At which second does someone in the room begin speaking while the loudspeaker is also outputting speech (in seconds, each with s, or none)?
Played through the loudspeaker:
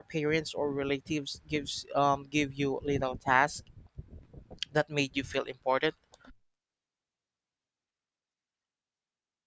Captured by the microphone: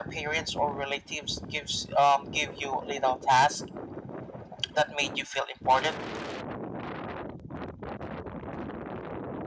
none